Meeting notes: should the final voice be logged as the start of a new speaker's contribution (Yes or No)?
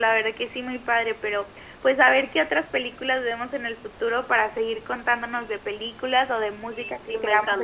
Yes